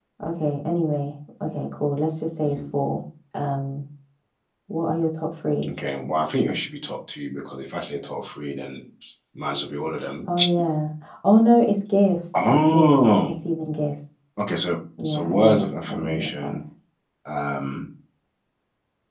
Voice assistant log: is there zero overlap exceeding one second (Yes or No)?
No